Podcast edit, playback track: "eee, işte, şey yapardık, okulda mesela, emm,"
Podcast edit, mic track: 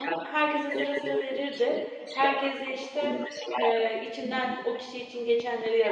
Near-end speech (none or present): present